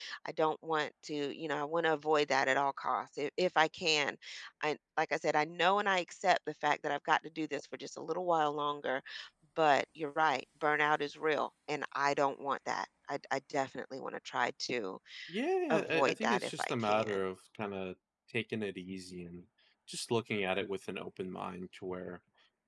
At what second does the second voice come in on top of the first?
15.7 s

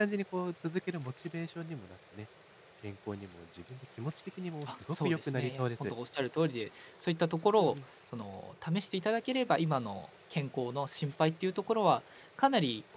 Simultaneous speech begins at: 4.6 s

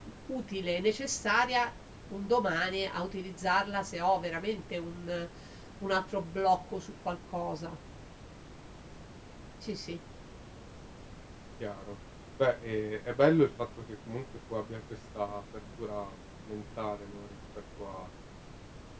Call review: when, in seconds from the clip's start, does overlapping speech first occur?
none

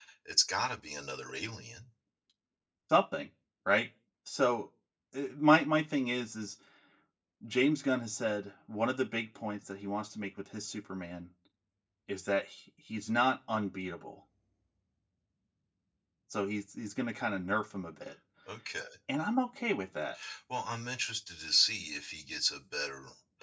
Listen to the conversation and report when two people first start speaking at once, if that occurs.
none

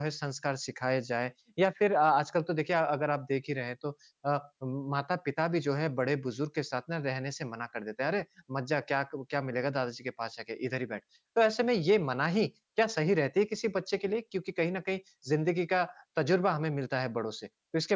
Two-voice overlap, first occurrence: none

